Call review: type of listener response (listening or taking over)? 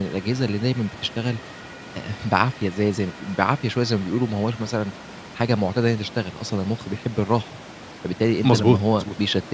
listening